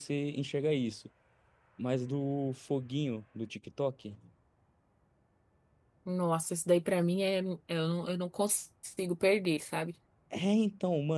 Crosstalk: none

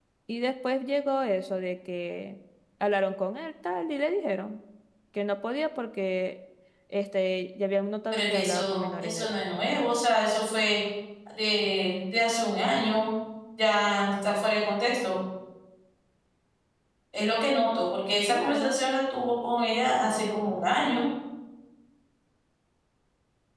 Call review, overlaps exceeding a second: present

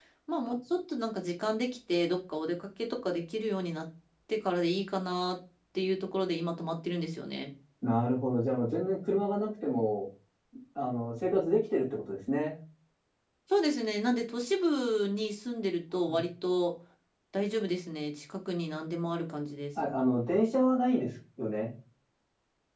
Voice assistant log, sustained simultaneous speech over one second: none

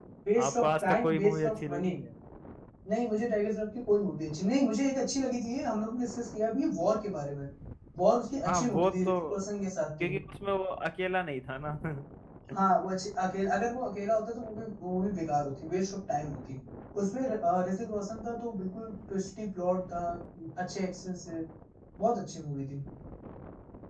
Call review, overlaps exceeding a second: present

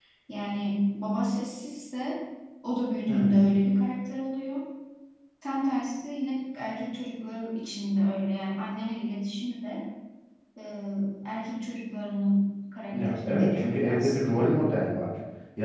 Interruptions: present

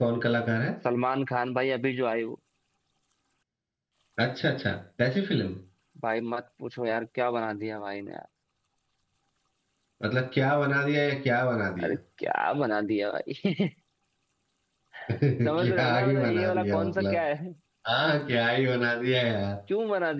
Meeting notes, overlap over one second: present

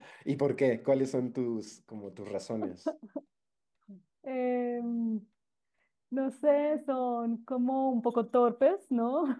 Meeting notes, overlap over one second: none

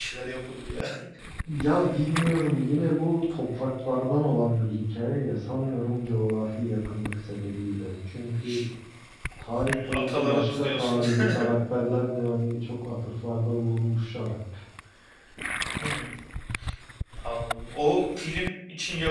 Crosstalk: present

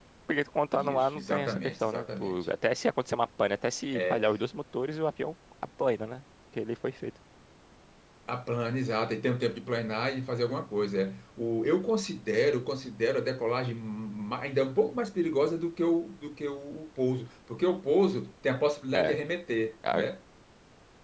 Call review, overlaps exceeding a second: present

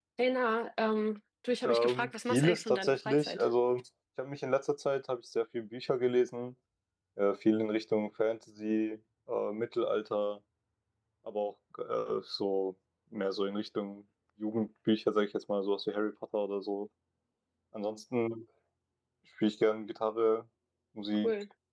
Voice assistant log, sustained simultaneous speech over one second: present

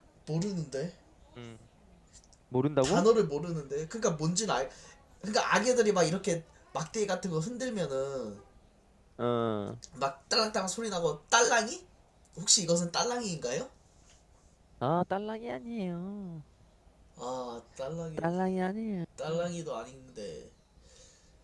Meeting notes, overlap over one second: none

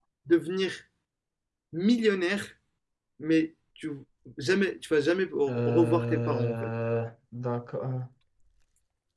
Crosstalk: present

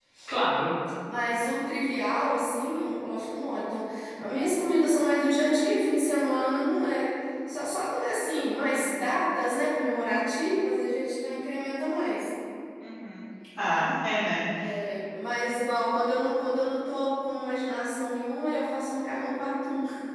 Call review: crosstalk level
none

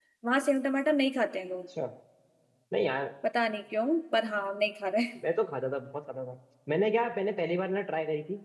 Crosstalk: none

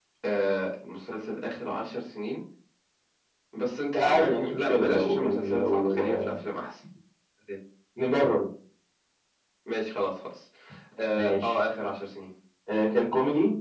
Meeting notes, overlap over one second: present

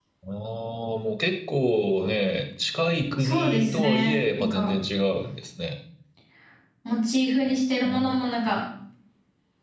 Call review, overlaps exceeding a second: present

